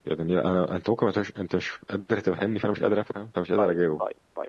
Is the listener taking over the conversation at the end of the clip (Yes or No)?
Yes